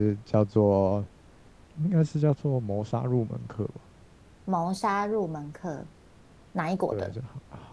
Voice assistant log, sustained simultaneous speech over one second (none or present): none